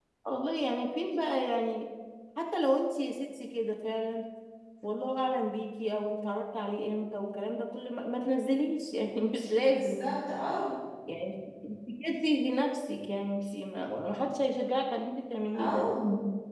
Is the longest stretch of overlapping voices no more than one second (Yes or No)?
Yes